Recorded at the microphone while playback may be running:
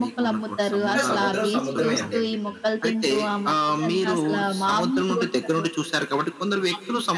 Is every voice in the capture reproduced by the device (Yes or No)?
No